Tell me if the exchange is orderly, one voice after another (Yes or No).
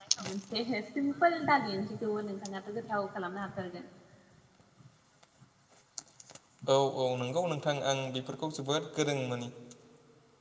Yes